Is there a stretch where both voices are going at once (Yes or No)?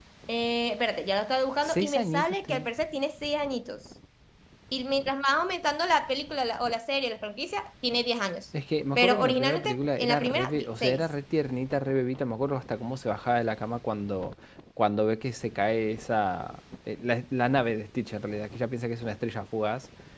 Yes